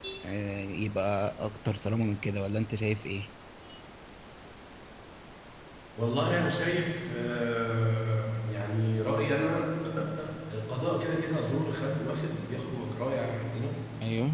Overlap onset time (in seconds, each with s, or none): none